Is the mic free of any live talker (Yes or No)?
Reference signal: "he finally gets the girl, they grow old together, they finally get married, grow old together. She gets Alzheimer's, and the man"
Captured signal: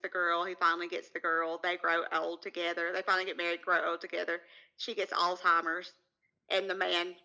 Yes